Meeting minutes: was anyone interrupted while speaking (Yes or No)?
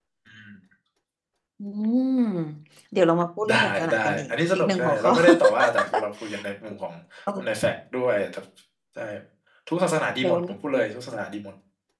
Yes